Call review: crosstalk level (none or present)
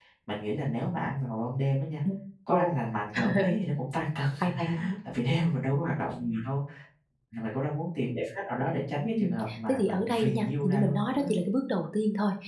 present